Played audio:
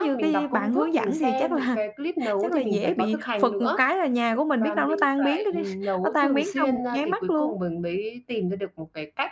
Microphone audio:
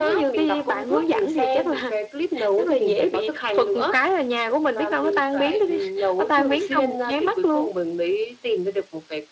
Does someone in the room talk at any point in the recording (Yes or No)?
No